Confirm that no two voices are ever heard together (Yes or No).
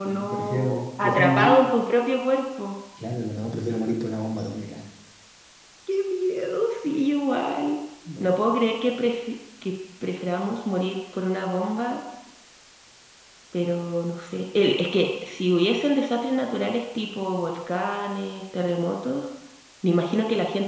No